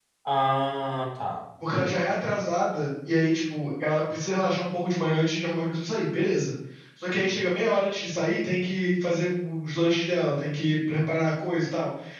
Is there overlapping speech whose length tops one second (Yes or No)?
No